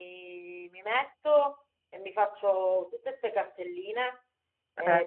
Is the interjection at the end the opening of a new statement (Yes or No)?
No